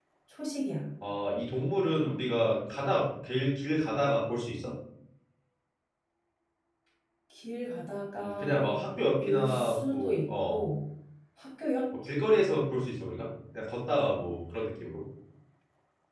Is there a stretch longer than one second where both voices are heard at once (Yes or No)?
Yes